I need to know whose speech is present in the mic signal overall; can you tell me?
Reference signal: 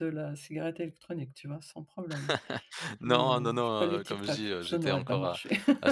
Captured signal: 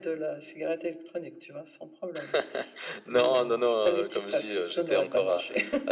echo only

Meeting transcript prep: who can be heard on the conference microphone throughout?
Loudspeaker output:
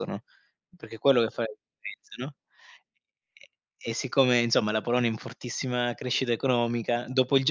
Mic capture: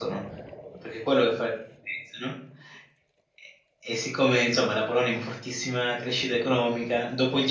echo only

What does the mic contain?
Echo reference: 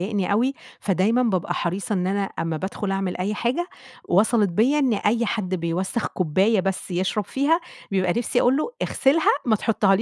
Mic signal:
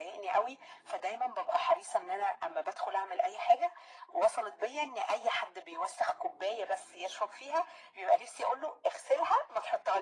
echo only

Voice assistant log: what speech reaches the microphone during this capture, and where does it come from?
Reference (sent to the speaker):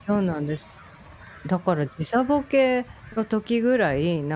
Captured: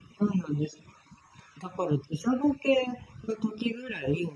echo only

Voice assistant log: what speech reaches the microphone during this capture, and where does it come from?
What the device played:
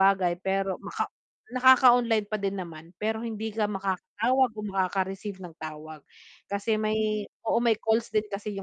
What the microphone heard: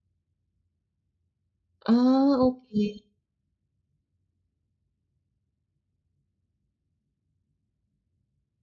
user only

